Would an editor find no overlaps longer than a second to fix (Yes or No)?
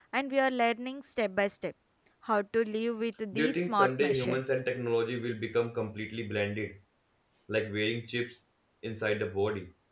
No